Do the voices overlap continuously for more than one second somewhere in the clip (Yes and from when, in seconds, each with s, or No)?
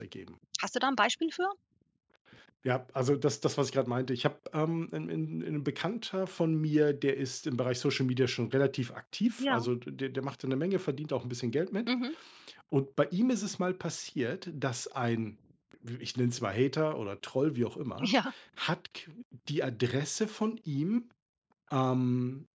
No